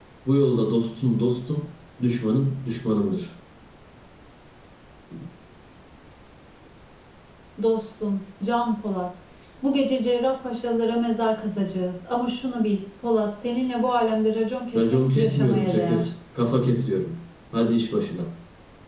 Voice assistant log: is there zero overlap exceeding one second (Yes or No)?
No